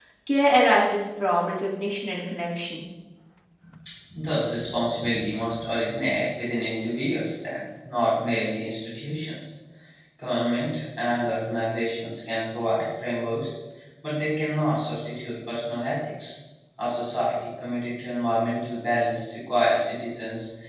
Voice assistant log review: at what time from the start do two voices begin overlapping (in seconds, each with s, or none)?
none